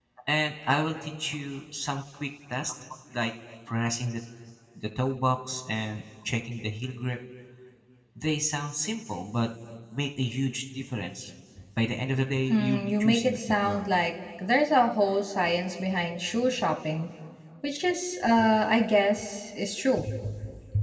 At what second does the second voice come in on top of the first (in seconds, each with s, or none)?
12.5 s